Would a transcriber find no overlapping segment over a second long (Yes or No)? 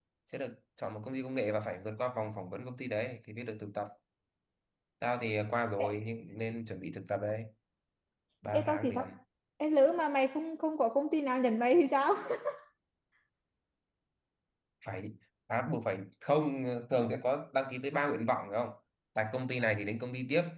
Yes